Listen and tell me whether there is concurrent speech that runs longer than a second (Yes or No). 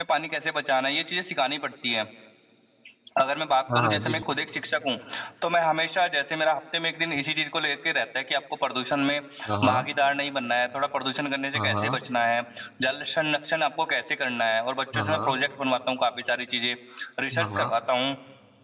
No